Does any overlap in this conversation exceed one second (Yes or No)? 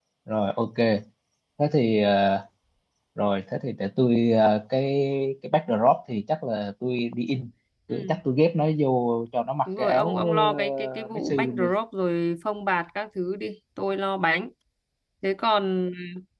Yes